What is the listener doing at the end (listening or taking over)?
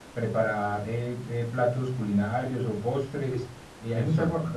listening